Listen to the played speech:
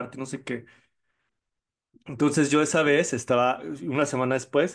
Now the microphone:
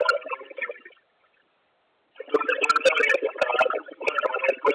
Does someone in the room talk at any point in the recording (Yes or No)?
No